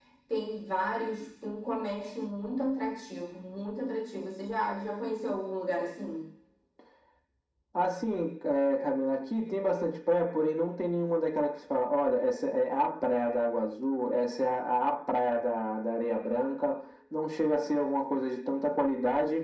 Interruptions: none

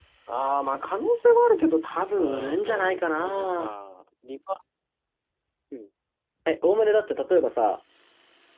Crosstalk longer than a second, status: present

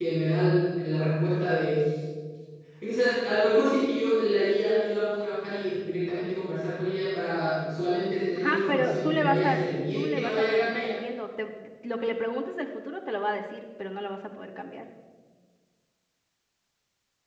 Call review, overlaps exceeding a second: present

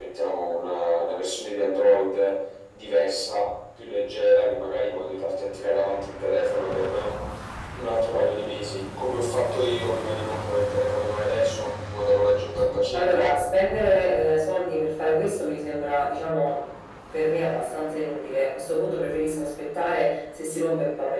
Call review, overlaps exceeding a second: none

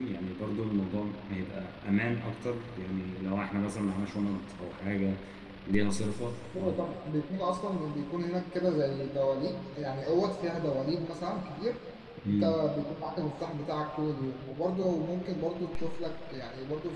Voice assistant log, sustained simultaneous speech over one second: none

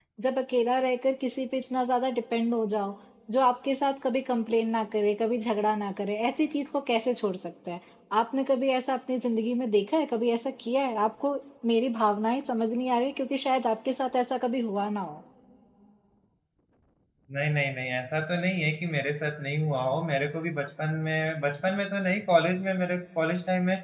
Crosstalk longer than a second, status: none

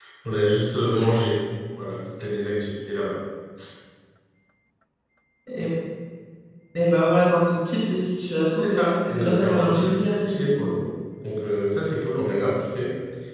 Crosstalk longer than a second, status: present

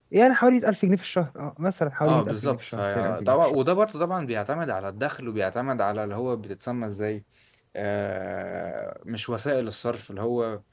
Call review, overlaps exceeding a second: present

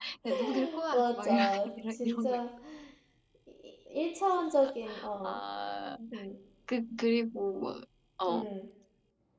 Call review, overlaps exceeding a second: present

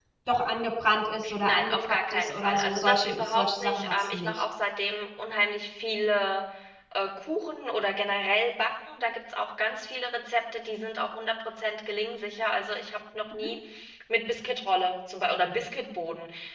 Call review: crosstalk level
present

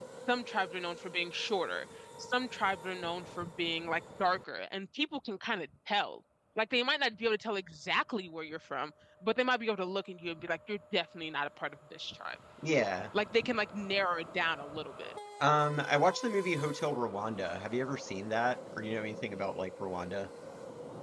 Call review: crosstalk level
none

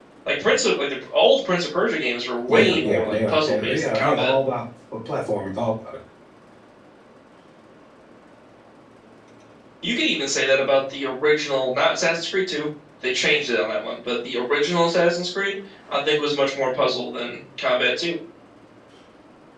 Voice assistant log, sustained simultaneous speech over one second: present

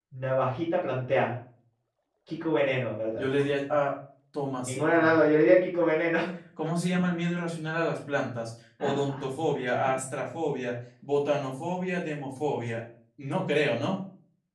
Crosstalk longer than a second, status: none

